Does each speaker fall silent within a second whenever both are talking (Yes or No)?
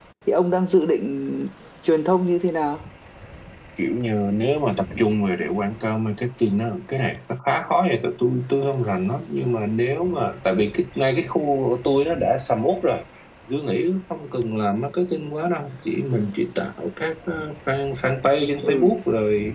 Yes